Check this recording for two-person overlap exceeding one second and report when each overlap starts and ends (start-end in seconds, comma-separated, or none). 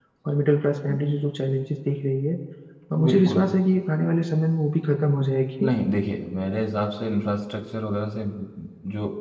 none